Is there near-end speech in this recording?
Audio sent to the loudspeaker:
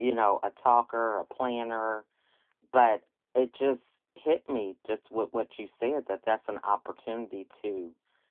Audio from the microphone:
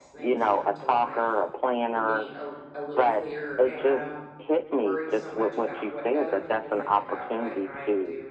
Yes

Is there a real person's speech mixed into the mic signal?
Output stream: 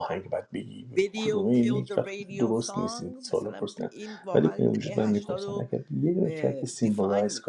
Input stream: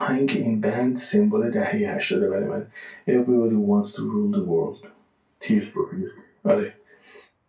Yes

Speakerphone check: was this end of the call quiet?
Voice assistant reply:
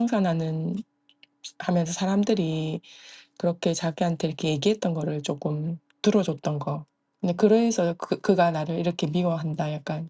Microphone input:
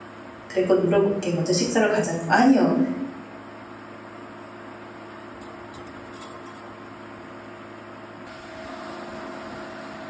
No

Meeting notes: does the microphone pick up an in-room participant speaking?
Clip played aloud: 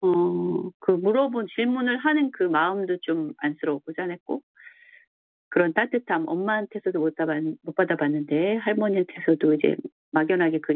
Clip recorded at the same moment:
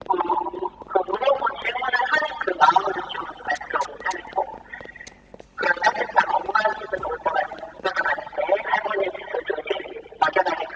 No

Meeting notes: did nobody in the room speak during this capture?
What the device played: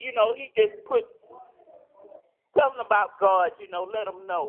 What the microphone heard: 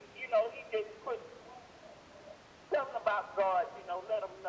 Yes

